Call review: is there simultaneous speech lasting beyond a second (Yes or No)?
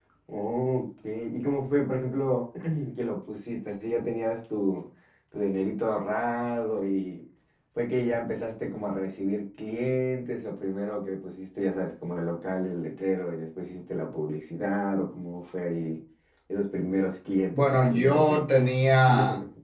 Yes